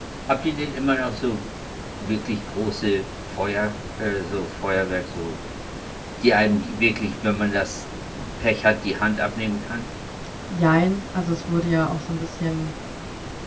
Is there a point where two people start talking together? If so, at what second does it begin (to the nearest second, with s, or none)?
none